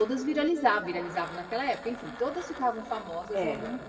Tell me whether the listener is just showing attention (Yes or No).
Yes